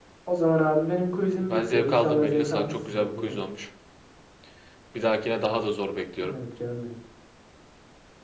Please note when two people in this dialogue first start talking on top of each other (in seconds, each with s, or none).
1.4 s